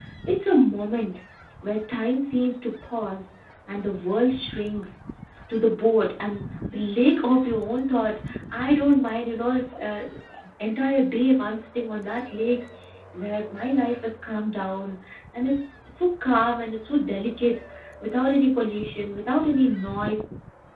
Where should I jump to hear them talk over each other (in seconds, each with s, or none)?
none